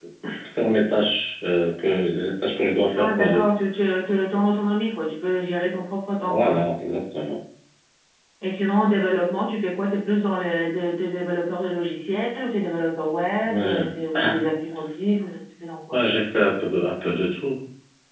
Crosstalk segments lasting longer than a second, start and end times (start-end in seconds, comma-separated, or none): none